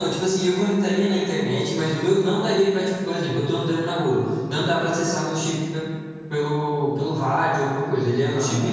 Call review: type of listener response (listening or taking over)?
listening